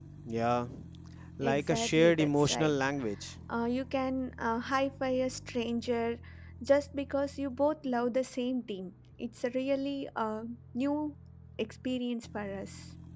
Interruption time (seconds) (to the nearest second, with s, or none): 1 s